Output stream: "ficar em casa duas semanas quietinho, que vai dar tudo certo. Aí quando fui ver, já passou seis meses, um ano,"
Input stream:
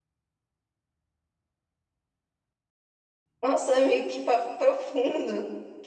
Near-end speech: present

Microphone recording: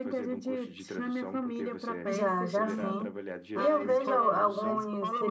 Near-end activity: present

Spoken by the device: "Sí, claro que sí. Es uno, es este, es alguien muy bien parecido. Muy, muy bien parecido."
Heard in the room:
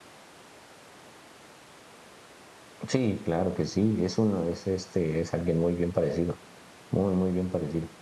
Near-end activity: none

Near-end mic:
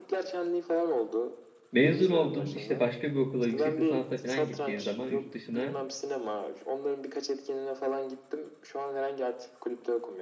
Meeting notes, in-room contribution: present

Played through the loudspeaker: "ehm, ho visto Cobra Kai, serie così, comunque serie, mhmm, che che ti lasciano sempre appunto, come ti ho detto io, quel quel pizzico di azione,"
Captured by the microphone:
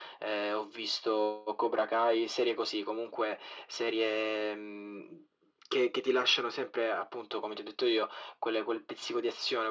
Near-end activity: none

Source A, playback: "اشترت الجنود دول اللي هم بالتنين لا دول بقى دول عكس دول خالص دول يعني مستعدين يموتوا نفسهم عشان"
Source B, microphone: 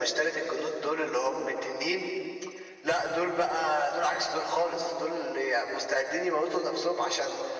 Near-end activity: none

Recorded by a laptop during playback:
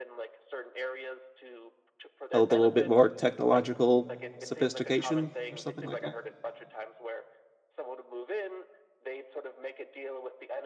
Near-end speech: present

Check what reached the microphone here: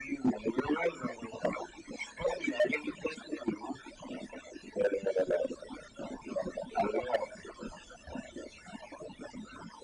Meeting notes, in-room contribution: none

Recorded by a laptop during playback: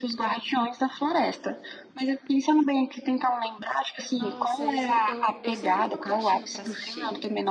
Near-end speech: present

